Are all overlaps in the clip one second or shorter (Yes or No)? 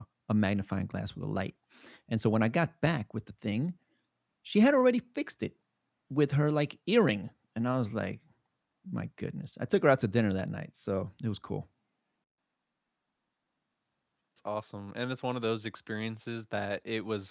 Yes